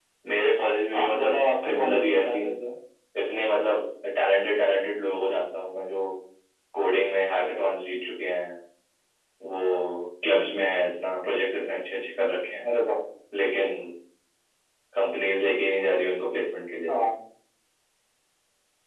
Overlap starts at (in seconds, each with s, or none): 1.0 s